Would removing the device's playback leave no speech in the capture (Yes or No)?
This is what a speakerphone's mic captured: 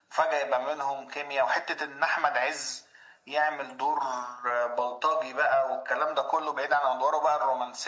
Yes